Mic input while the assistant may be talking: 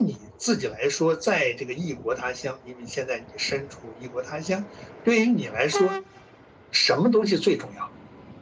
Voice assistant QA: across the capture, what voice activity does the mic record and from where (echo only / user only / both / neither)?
echo only